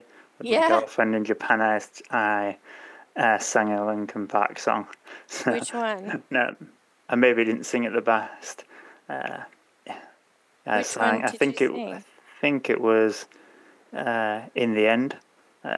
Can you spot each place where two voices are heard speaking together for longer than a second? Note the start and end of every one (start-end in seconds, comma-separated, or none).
10.7-12.0